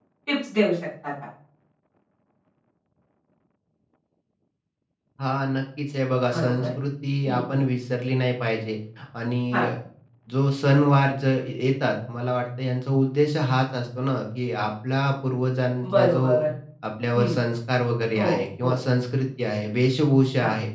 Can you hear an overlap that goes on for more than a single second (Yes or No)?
No